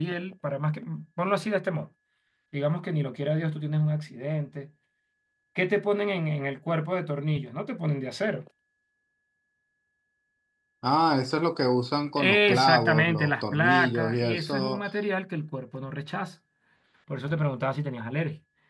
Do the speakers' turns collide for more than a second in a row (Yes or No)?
Yes